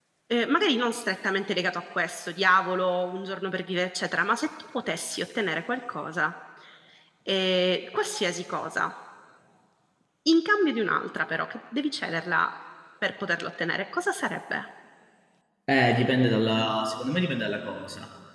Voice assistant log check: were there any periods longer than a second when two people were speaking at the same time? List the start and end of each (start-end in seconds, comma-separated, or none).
none